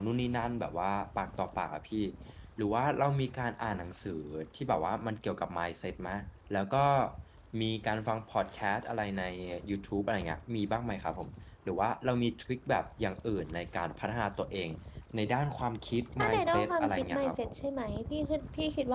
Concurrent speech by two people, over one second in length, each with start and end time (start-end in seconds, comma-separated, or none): 16.2-17.5